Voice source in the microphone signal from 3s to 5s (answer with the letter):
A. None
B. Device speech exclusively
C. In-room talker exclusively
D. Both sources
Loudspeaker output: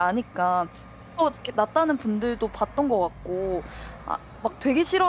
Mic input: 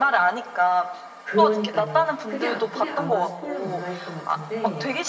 D